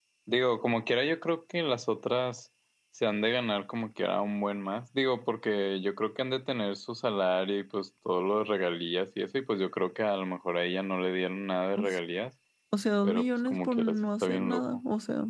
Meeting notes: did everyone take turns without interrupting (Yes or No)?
No